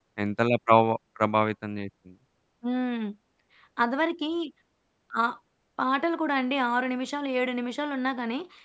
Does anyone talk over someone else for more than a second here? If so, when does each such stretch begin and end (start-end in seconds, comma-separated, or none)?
none